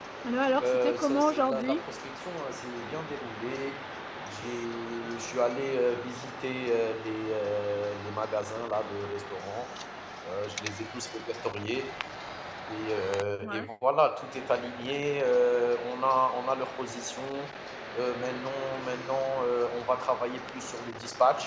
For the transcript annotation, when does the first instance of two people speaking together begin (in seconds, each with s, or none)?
0.6 s